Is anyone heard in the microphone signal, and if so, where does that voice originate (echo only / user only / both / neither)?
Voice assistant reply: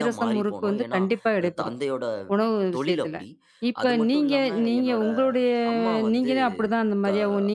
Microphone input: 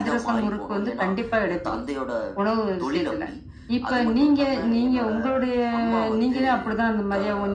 echo only